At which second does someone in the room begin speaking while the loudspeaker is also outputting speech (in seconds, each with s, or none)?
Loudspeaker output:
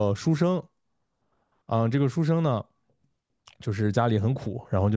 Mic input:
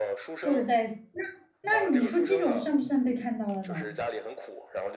0.4 s